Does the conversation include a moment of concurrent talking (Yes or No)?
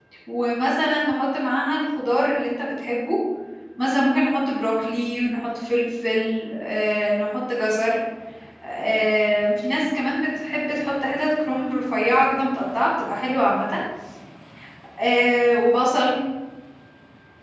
No